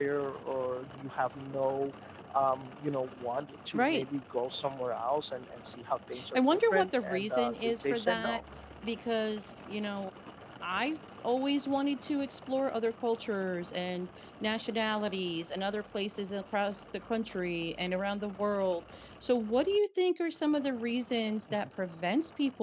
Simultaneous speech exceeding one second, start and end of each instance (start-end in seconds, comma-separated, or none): 6.4-8.4